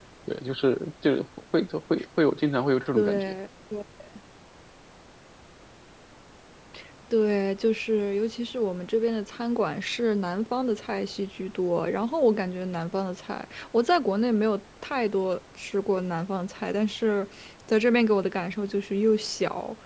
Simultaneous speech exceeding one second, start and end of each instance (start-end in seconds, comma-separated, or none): none